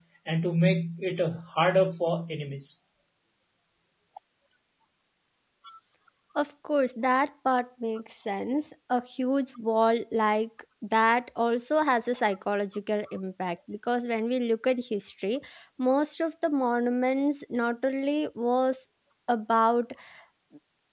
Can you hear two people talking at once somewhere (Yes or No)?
No